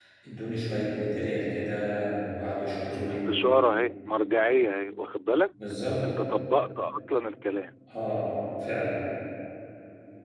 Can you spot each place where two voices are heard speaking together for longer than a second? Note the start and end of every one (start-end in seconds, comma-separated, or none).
none